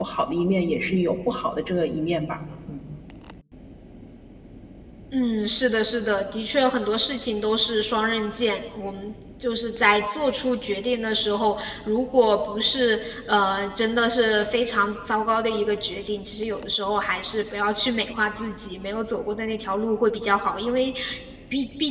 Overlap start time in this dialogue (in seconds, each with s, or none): none